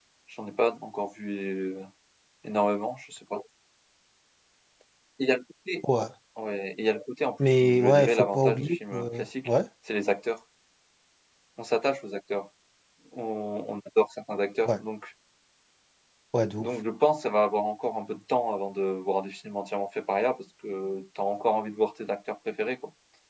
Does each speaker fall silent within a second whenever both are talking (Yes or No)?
No